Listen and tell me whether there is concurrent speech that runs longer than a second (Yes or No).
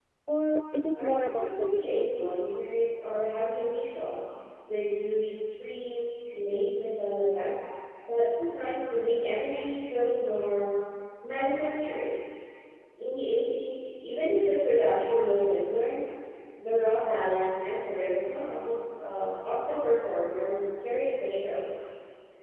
Yes